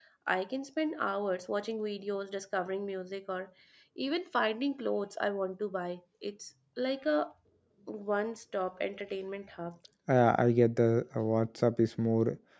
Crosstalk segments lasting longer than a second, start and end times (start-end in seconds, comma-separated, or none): none